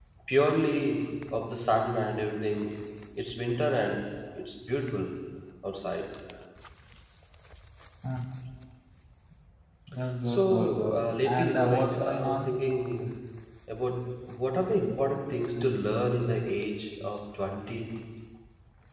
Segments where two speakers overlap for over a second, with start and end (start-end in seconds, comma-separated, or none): 10.2-12.5